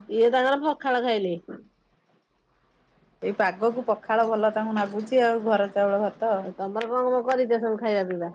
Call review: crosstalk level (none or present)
none